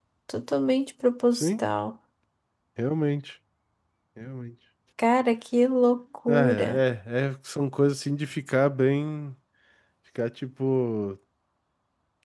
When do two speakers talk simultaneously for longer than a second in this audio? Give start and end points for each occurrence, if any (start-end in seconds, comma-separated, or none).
none